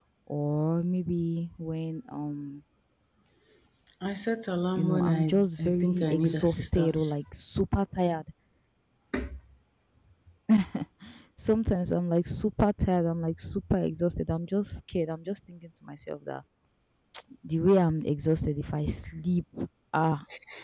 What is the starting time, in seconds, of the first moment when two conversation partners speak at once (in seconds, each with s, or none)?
4.8 s